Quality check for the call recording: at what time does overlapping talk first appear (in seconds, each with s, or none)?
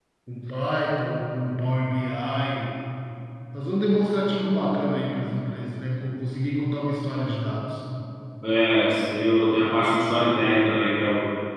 none